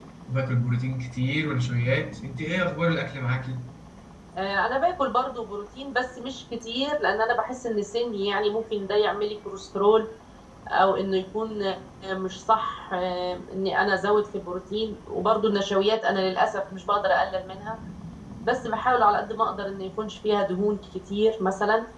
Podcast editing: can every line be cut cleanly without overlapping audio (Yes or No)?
Yes